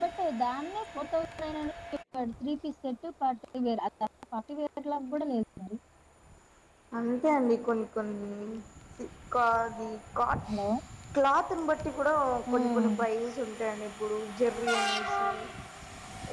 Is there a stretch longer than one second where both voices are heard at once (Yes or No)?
No